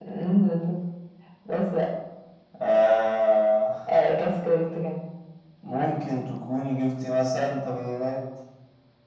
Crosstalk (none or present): none